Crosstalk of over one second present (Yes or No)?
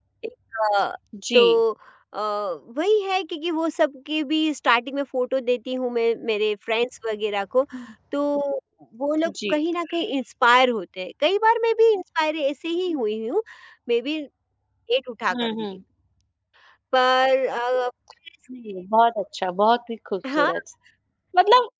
No